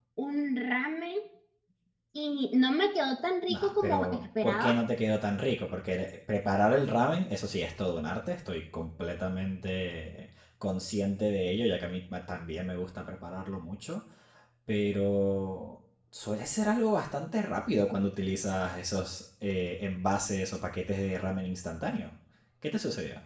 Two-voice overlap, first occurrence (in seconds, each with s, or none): 3.5 s